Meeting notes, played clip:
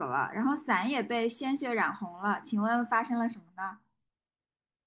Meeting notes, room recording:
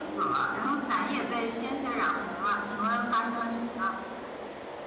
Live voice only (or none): none